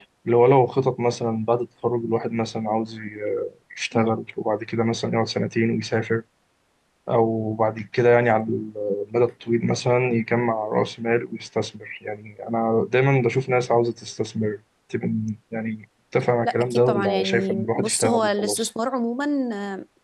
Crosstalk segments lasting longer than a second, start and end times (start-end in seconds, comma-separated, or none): 16.4-18.7